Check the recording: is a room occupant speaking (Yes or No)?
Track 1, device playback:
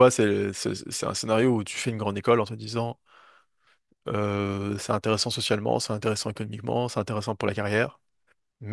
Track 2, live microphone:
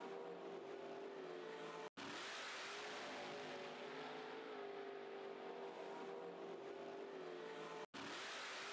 No